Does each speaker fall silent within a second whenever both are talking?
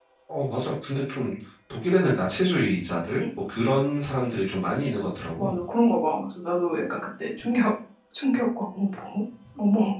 Yes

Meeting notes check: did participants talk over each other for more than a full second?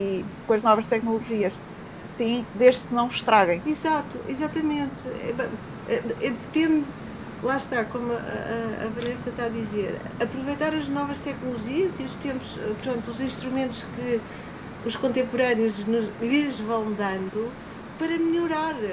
No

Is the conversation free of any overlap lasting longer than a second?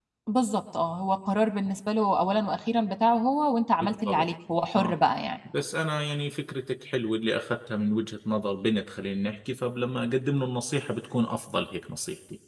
Yes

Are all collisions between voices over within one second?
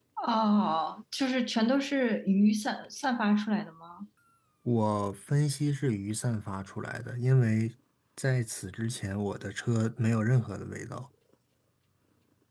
Yes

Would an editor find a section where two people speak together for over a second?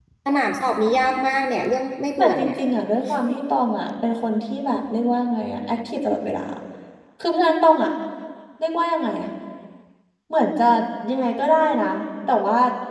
No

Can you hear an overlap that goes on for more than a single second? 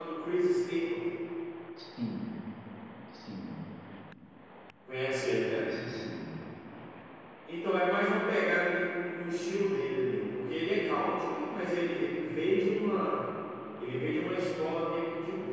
No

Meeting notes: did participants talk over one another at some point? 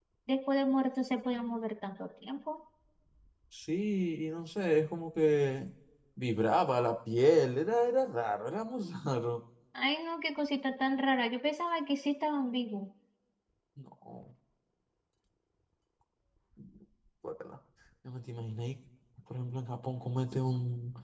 No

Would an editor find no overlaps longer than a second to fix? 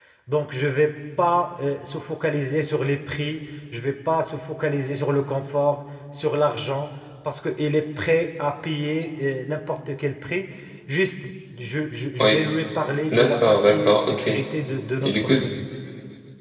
No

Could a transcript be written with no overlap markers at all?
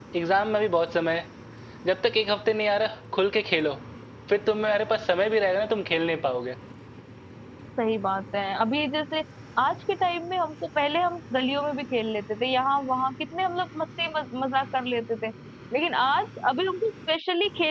Yes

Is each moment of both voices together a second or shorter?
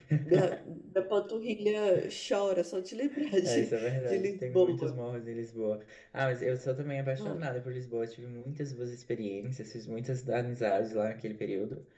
No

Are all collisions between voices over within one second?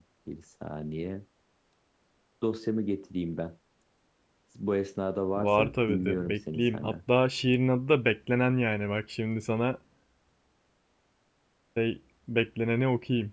No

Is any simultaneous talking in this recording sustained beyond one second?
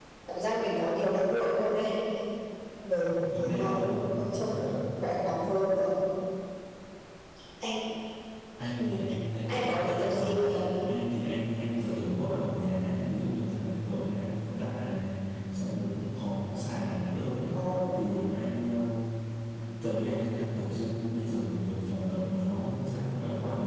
Yes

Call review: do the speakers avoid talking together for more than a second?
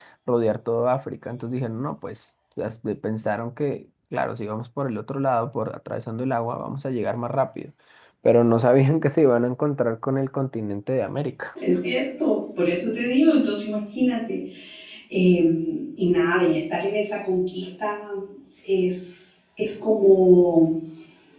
Yes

